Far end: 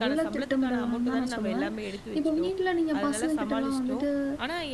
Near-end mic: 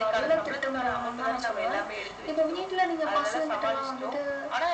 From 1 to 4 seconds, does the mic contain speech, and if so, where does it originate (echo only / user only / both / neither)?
echo only